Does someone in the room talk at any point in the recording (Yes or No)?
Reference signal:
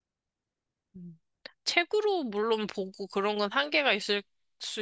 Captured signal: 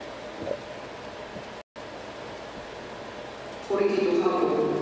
Yes